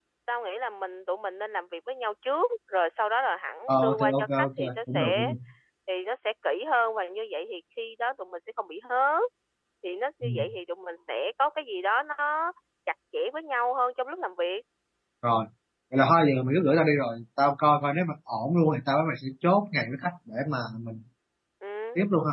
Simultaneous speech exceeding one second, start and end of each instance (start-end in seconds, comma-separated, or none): 3.7-5.3